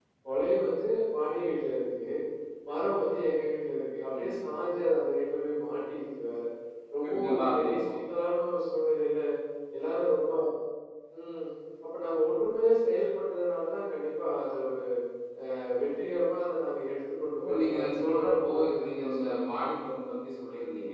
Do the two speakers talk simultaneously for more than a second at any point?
Yes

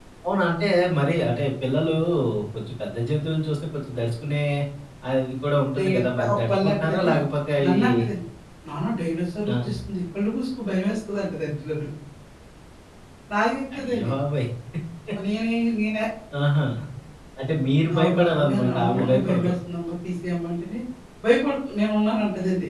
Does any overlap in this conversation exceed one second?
Yes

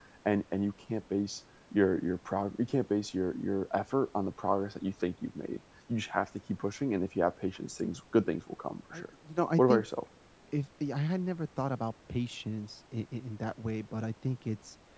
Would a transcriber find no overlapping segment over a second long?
Yes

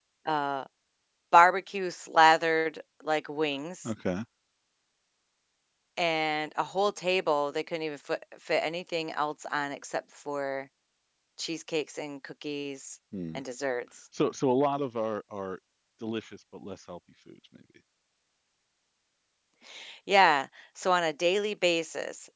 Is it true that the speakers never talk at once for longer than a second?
Yes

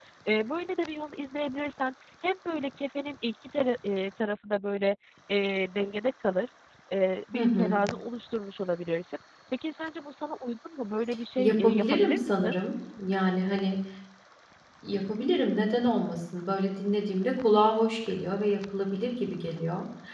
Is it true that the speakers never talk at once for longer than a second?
No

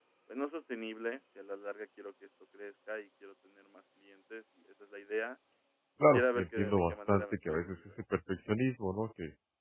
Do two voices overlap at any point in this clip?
Yes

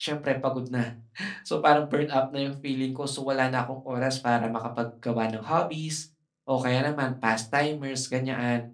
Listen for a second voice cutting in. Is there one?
No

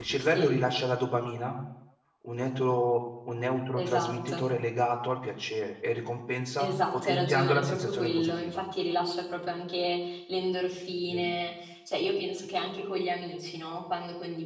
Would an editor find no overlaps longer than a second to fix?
No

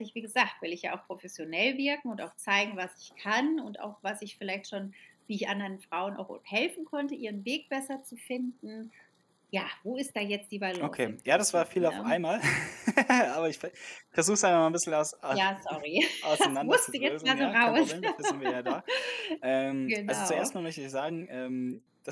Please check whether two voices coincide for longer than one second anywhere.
Yes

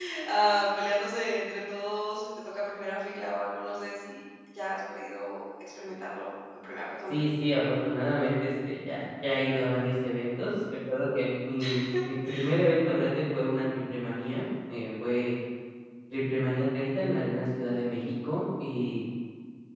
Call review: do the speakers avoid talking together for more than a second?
Yes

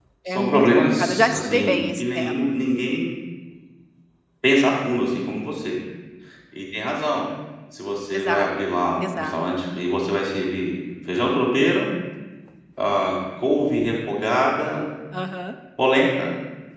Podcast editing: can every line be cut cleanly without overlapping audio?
No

